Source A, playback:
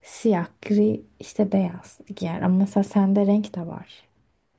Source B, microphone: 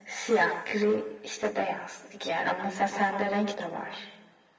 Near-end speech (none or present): none